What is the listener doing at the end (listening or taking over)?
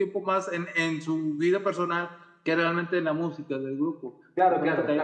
taking over